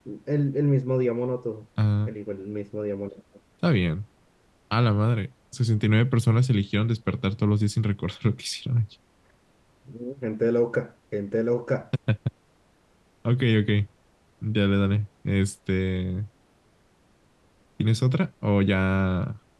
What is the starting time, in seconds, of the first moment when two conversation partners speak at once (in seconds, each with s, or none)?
none